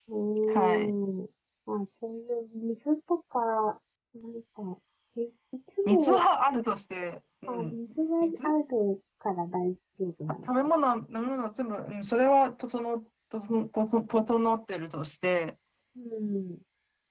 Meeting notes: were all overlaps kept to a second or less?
Yes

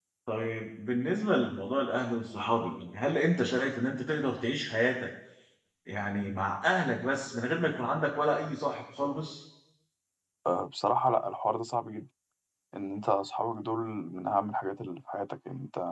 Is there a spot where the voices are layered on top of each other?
No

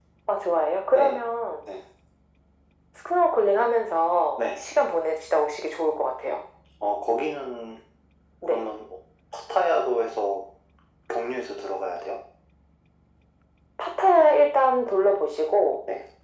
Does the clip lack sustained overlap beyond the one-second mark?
Yes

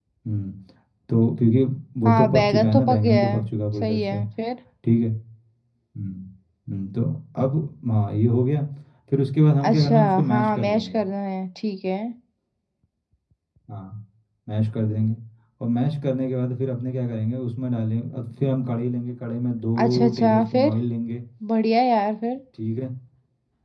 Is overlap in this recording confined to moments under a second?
No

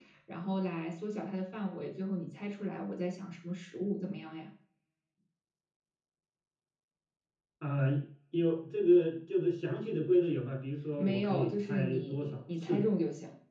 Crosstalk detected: Yes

